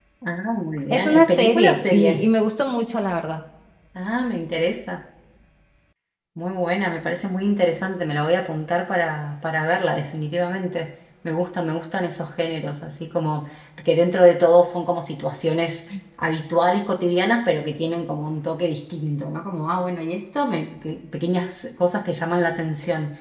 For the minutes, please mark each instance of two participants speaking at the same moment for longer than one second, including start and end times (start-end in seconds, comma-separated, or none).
0.9-2.2